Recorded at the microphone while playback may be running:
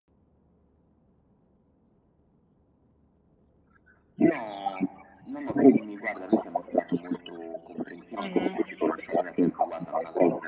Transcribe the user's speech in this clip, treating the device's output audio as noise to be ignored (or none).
Mh-mh.